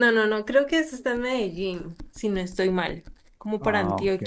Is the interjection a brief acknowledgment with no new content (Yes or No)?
Yes